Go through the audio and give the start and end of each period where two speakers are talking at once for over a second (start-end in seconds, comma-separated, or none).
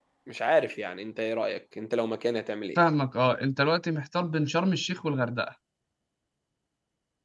none